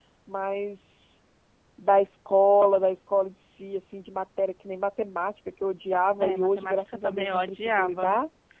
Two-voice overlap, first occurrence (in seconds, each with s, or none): 6.2 s